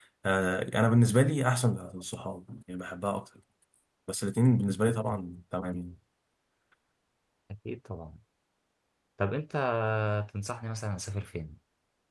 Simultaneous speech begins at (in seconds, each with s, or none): none